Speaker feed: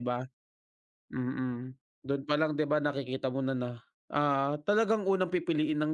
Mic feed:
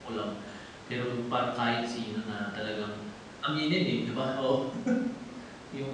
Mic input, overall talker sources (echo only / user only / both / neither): user only